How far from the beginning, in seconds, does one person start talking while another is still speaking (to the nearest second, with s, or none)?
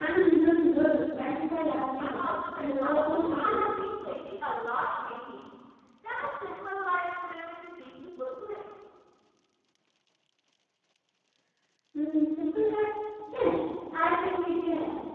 2 s